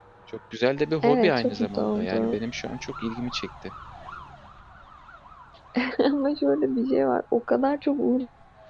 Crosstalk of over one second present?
Yes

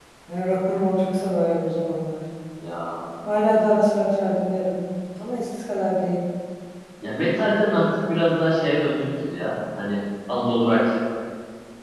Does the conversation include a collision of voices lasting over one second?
No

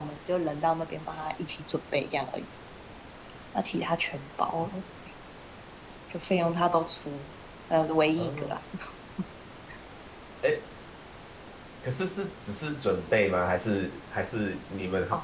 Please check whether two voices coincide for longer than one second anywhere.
No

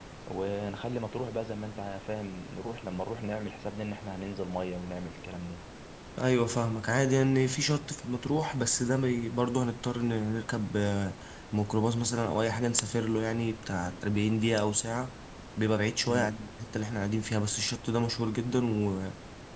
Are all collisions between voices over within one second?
Yes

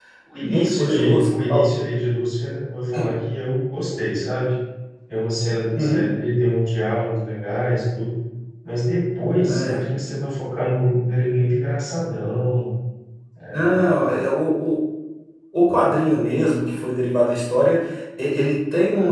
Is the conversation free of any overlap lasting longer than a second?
No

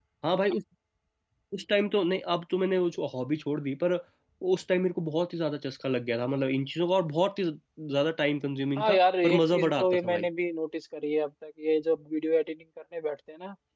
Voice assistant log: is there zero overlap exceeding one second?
No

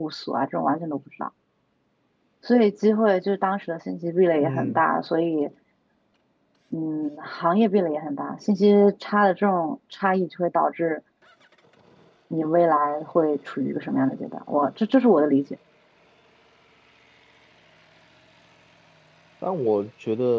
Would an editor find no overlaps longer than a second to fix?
Yes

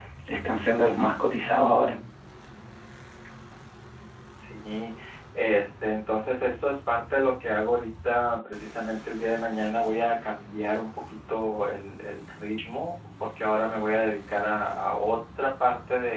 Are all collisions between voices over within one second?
Yes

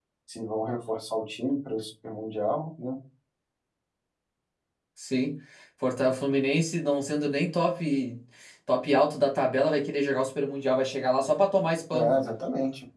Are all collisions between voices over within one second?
Yes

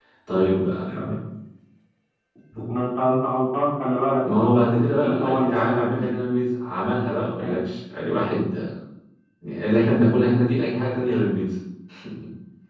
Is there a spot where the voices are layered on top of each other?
Yes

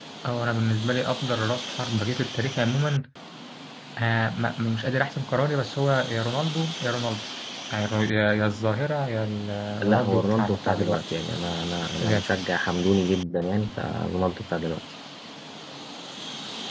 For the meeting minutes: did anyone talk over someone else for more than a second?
Yes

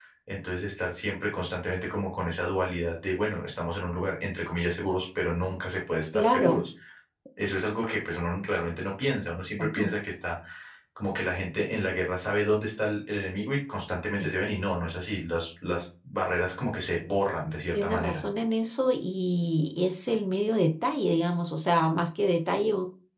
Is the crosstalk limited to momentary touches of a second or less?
Yes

